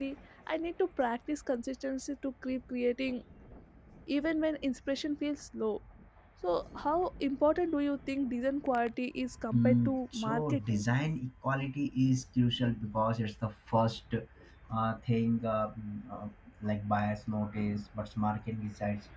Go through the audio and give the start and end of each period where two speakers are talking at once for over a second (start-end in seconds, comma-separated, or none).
9.5-10.8